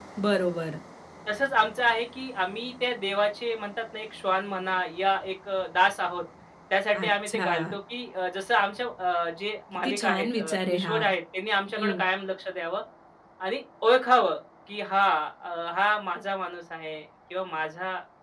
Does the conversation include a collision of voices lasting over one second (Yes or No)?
Yes